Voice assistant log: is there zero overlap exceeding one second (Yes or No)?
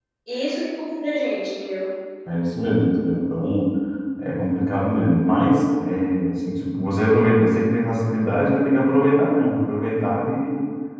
Yes